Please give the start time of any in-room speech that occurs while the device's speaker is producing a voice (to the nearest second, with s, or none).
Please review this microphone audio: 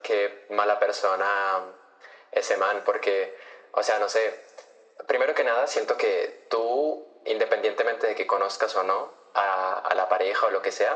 none